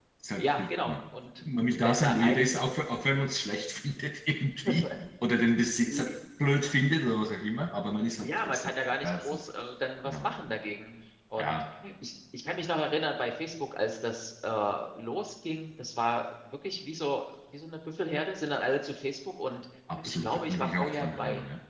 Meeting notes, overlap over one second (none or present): present